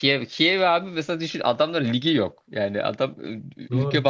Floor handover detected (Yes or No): No